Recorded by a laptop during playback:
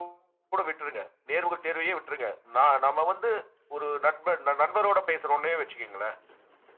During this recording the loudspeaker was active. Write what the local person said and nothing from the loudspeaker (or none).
none